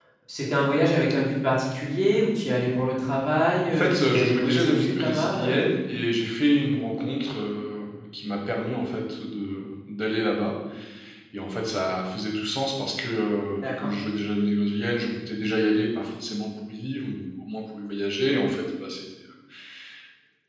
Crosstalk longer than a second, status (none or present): present